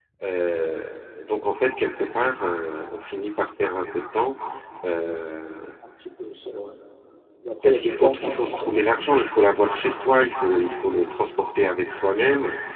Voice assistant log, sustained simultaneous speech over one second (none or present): present